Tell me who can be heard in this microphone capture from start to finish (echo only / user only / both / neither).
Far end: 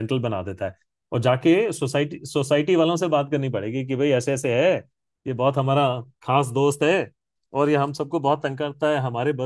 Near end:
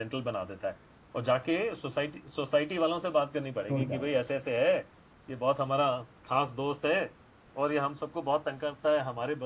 both